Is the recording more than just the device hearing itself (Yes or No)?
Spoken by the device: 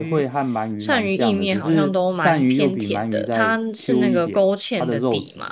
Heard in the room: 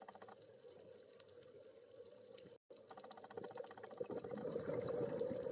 No